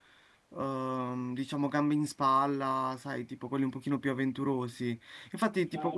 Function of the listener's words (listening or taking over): listening